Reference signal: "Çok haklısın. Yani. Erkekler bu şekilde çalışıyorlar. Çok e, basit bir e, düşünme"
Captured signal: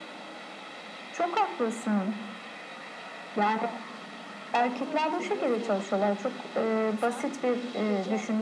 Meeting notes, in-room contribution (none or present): present